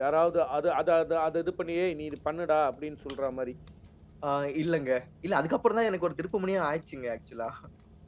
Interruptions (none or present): none